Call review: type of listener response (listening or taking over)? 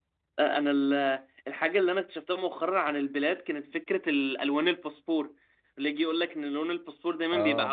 listening